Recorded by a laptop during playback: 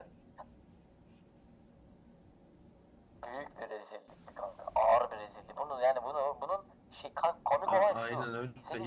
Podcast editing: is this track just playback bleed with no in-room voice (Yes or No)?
No